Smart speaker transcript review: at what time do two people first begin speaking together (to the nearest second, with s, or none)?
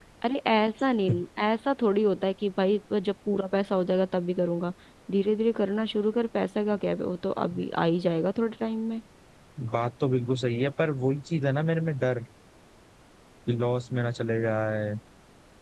none